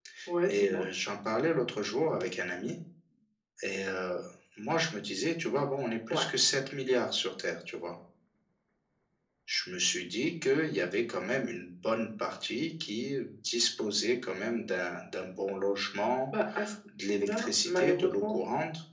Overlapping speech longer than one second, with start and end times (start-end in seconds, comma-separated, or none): 17.1-18.4